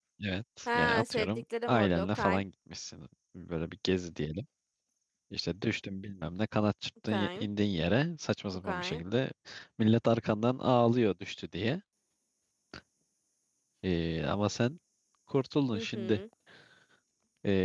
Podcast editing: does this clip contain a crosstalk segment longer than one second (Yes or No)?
Yes